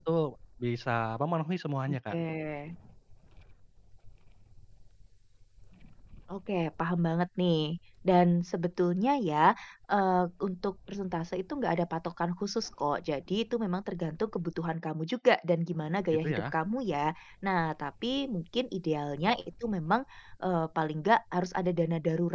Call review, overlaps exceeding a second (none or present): none